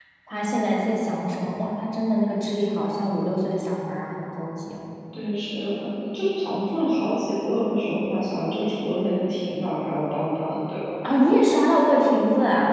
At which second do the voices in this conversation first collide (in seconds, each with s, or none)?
none